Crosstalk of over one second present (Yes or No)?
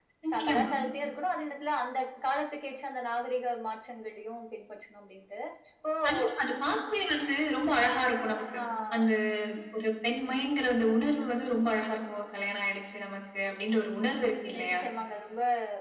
No